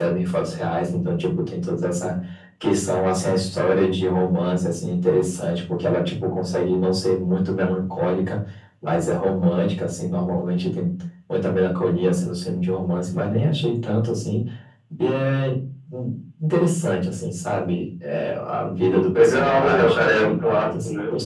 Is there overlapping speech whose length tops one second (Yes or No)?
Yes